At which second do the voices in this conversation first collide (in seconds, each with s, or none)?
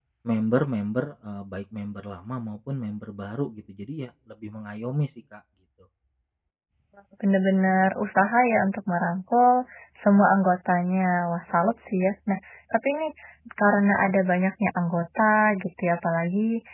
none